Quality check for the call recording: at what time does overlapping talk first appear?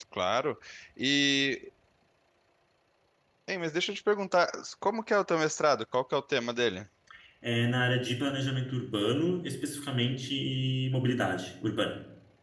none

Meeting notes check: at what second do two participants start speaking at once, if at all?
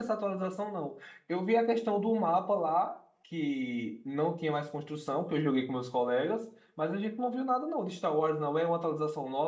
none

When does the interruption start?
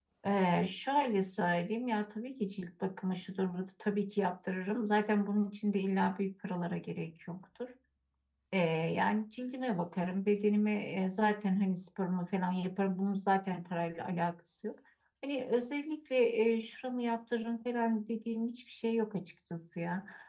none

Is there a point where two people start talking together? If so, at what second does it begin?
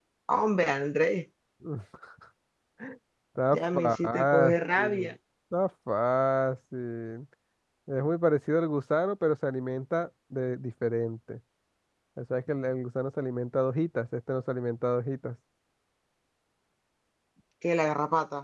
3.5 s

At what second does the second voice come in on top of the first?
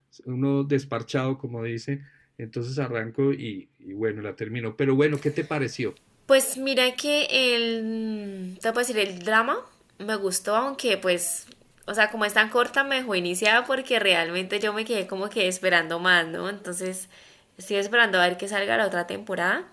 none

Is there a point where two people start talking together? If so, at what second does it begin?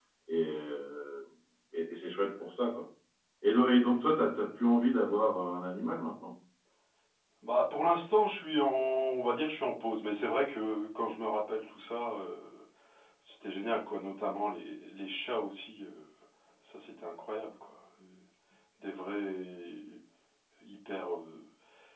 none

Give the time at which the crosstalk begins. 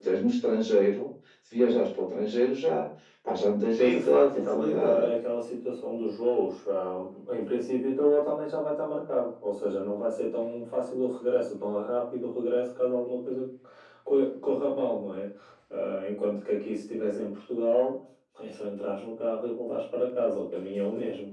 3.8 s

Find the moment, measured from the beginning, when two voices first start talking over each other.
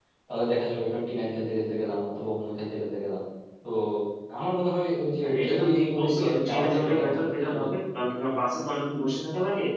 5.2 s

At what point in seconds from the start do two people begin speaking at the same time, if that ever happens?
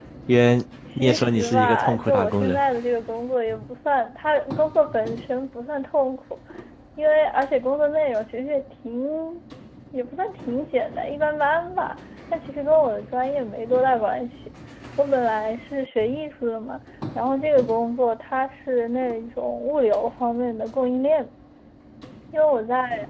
1.0 s

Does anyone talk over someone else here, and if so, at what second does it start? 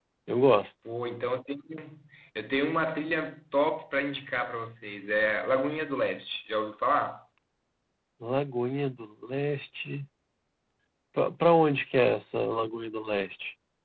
none

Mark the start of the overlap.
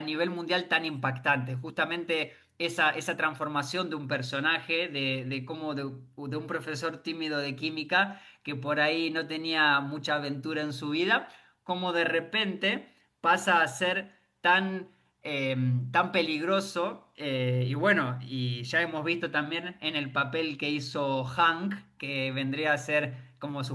none

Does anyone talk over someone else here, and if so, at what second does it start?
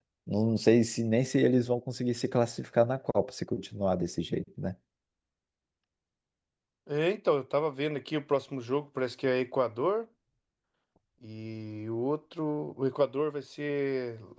none

